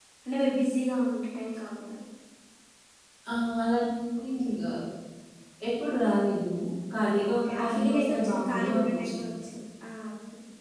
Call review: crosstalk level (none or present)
present